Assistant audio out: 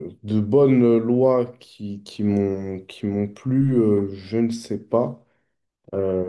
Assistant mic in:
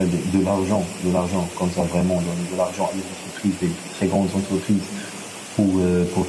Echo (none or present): none